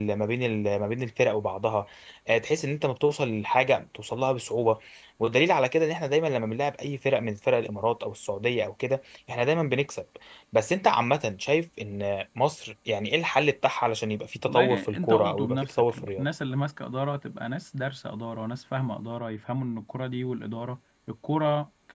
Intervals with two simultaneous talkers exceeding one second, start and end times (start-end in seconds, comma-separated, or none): 14.5-16.2